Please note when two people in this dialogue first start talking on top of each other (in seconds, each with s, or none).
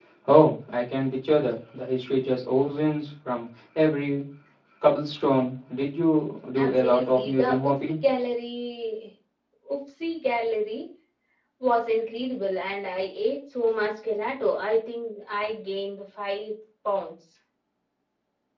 6.6 s